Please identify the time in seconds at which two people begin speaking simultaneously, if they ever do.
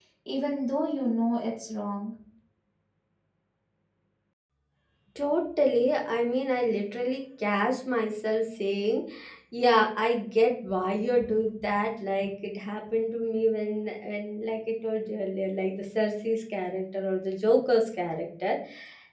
none

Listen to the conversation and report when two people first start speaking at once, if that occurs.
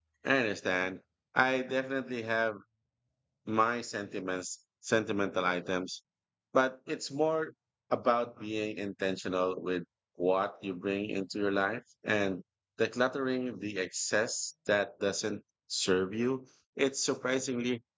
none

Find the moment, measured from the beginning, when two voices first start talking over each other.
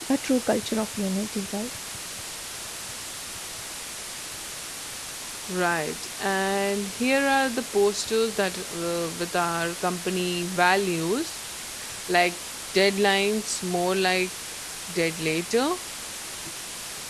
none

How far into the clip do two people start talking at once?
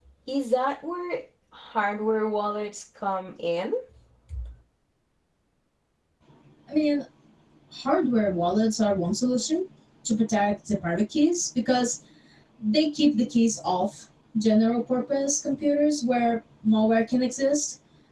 none

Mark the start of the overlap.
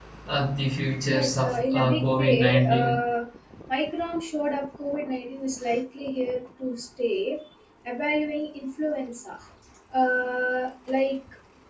1 s

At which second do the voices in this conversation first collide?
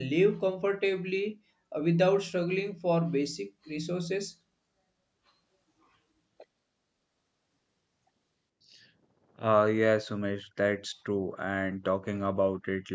none

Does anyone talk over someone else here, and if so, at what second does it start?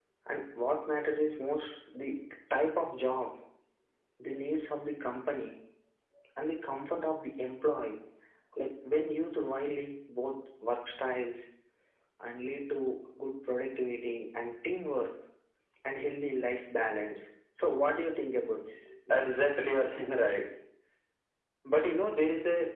none

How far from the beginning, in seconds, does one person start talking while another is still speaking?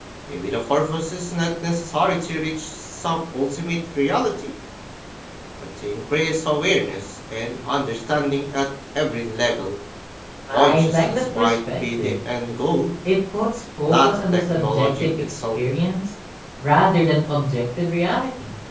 11 s

